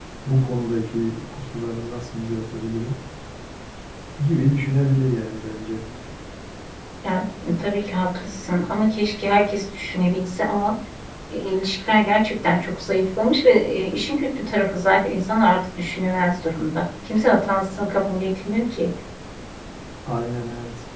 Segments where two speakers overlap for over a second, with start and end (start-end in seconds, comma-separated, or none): none